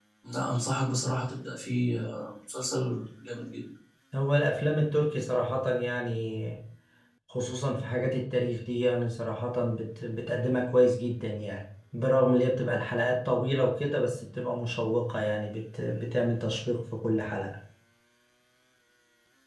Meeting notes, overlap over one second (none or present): none